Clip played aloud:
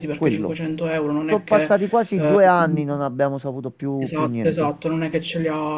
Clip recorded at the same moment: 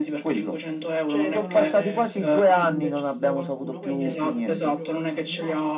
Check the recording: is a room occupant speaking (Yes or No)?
Yes